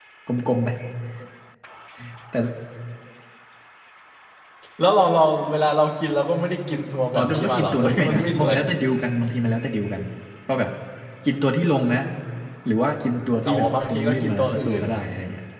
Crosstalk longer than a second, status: present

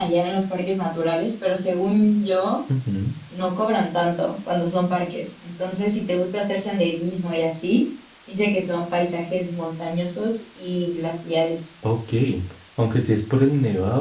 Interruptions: none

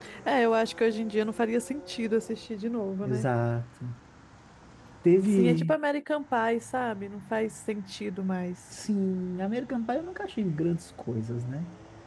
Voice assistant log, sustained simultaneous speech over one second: none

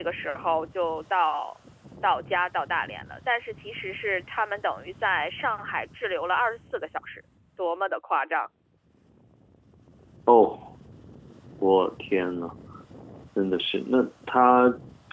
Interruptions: none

